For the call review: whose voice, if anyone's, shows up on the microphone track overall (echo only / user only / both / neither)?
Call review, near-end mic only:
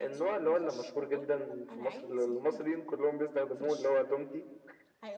both